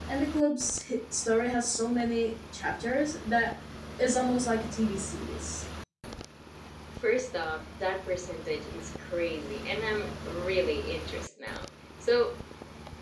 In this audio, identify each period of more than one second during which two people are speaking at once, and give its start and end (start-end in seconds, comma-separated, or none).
none